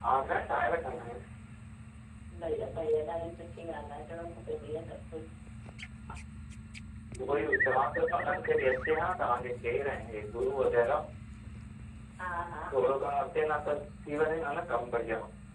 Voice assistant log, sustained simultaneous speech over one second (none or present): none